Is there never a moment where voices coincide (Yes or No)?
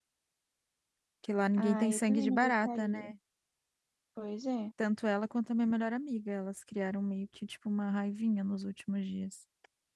No